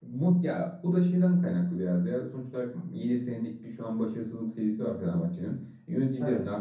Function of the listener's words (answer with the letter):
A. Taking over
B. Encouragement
B